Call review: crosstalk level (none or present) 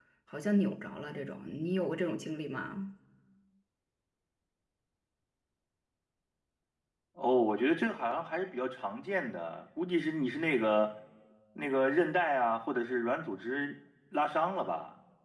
none